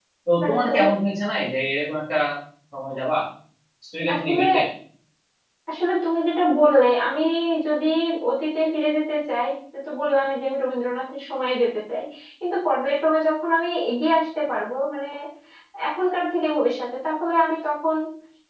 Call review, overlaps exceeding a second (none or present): none